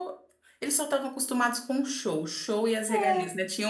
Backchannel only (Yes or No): Yes